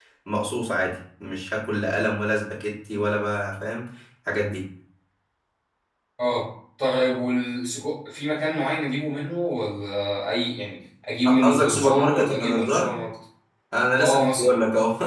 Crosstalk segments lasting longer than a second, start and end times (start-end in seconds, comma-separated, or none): 11.4-12.9